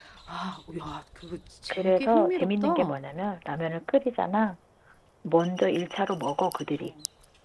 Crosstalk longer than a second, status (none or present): present